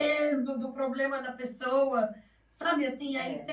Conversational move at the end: listening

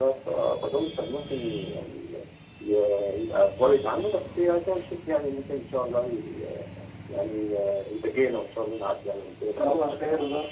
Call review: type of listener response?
taking over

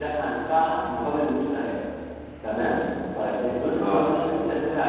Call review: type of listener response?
listening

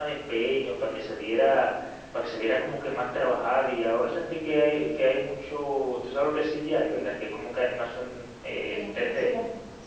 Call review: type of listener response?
taking over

